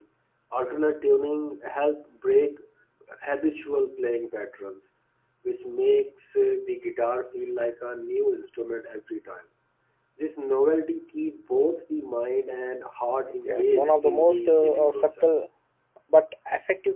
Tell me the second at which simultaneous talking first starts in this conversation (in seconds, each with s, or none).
13.4 s